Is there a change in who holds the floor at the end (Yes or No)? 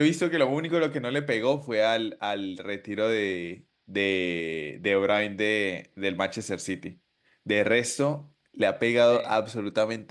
No